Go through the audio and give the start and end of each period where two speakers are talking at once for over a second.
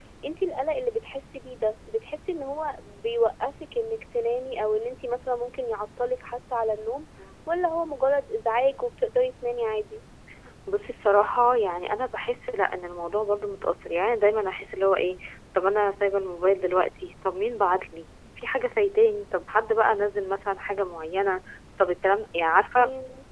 none

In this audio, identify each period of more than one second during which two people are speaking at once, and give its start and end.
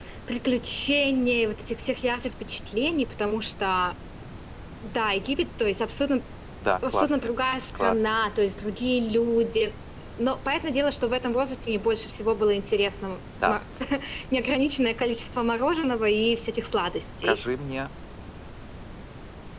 none

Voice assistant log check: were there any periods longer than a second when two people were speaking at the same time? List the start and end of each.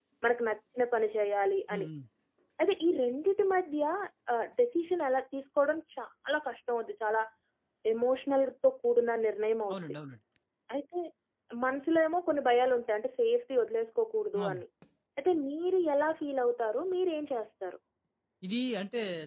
none

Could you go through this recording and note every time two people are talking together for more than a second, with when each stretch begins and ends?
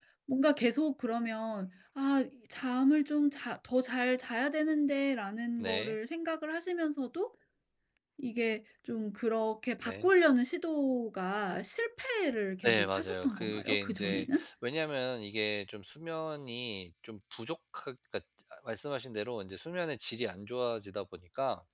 12.6-14.4

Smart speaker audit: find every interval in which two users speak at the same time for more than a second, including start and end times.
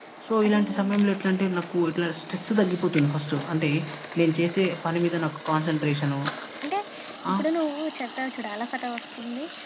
none

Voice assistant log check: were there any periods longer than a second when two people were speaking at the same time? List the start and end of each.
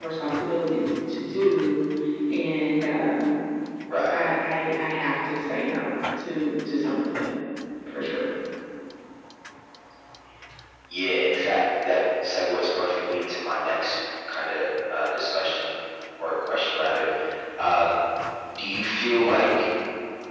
none

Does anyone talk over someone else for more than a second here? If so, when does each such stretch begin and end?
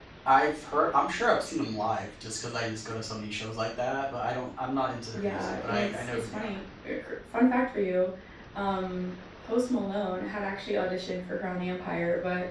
5.1-6.6

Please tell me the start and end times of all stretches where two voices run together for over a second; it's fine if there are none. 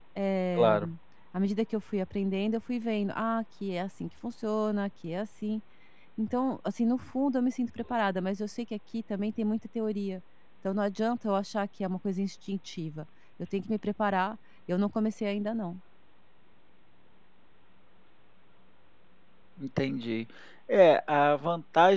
none

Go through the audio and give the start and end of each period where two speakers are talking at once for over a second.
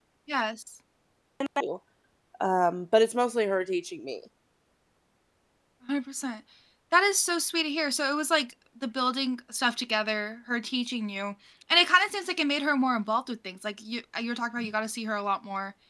none

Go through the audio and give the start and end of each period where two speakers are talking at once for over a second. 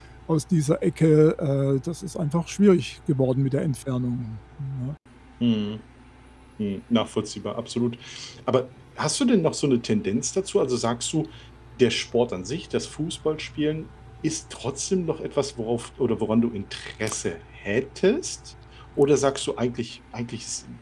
none

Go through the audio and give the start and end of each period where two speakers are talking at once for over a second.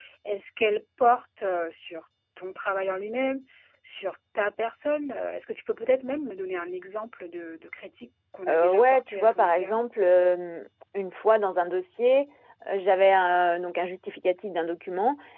8.5-9.8

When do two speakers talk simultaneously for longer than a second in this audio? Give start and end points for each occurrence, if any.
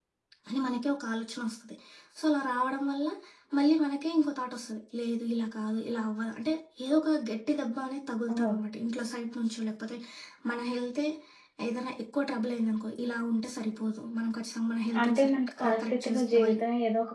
15.0-16.6

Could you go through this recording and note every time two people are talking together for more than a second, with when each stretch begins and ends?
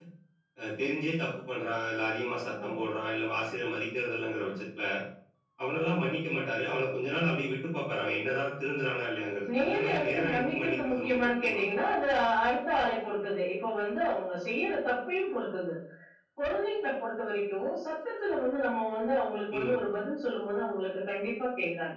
9.6-11.6

